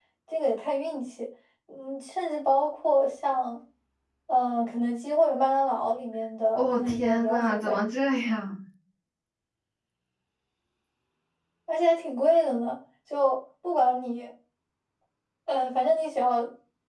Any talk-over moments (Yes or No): Yes